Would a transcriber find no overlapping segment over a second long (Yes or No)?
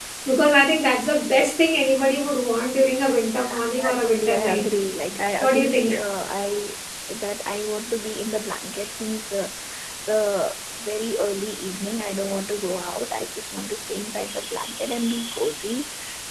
No